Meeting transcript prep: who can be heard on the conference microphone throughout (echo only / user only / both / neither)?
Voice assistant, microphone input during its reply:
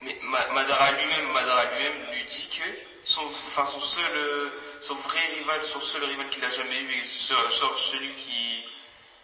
echo only